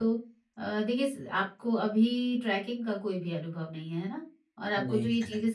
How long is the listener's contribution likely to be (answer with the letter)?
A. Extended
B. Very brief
B